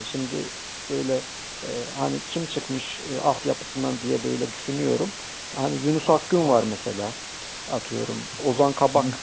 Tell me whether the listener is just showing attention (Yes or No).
Yes